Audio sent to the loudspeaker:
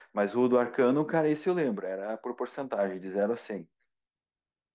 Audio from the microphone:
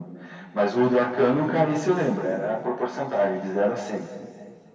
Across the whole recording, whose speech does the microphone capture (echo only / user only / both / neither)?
echo only